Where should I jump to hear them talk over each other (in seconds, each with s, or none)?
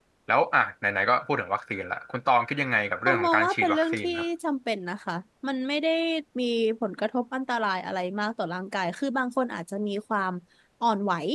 3.1 s